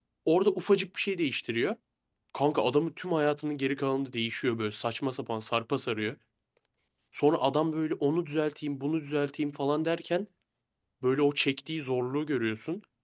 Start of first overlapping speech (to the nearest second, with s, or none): none